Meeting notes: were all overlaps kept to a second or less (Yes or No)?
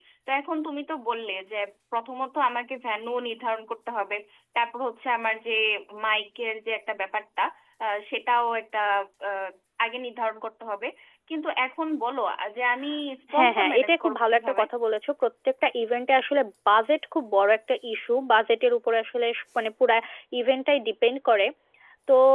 No